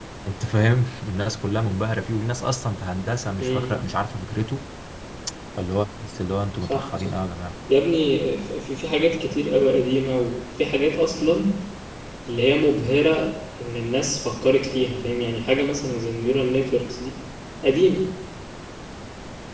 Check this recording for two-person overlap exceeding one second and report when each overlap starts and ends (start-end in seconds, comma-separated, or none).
none